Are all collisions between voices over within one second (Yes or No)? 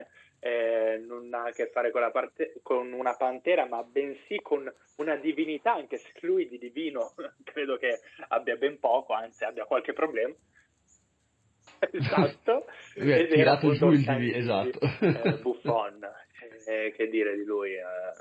No